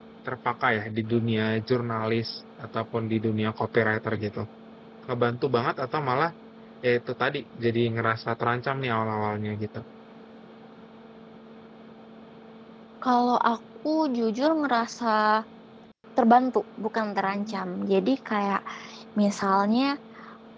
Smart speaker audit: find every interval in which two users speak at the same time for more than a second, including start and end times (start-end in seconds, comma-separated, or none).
none